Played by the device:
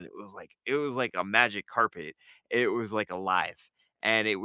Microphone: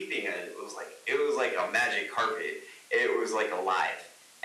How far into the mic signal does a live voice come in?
none

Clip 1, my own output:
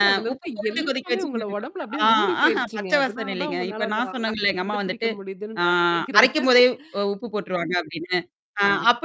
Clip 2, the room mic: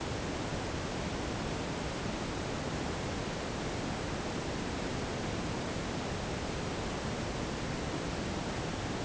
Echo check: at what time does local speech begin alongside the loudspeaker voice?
none

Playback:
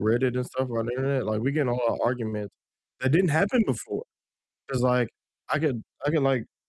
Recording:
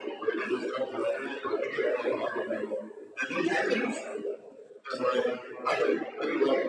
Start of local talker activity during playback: none

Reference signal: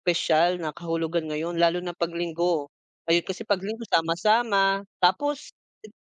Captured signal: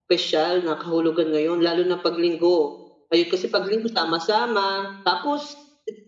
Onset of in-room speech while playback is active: none

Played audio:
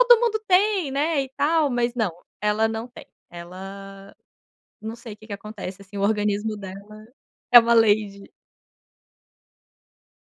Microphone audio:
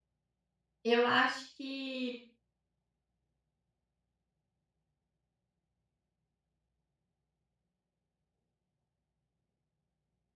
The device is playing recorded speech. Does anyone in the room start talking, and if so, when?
0.8 s

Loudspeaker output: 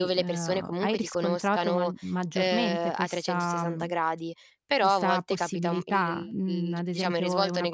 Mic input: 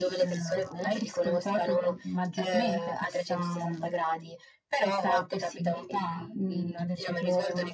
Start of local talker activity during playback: none

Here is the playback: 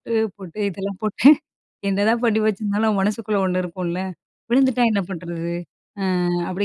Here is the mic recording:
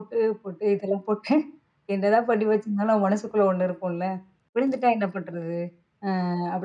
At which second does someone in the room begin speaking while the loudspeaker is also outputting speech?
none

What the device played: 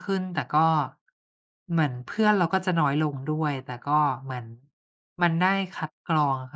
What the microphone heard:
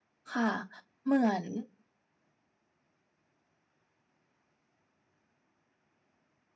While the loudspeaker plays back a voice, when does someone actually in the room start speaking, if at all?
0.3 s

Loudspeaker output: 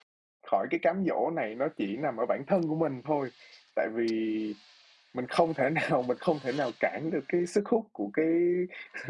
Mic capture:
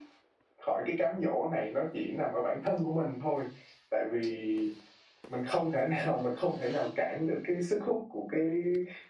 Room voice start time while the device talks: none

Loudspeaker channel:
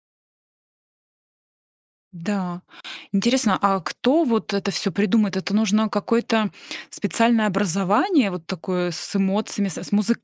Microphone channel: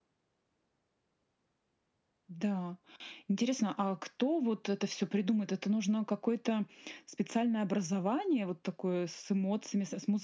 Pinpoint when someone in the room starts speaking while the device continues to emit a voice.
none

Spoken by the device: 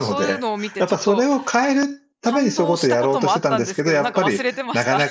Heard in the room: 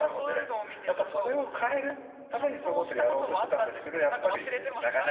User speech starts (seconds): none

